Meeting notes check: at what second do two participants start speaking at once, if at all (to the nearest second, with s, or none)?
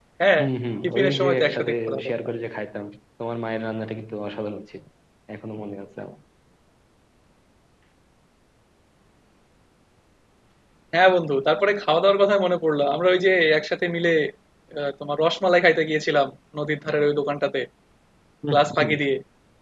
1 s